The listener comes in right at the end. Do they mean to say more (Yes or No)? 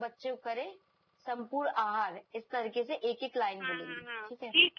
Yes